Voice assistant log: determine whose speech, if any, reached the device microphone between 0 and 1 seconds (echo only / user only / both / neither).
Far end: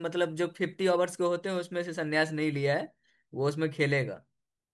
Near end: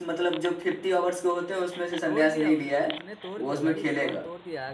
echo only